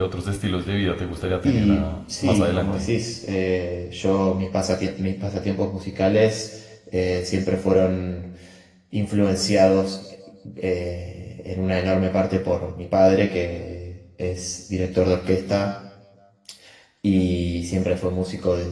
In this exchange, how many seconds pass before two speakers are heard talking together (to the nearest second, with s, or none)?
1 s